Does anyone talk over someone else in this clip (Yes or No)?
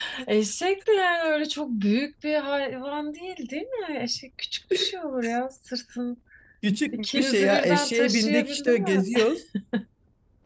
Yes